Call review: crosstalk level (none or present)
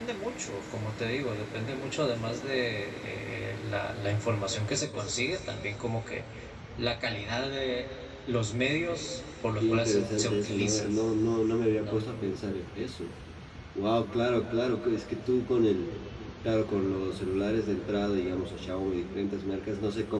present